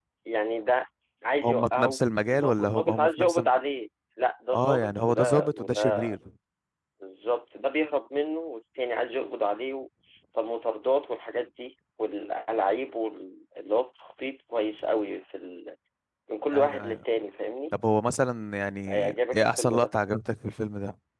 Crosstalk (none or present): present